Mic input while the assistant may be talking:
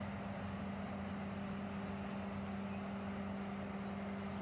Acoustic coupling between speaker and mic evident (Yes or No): No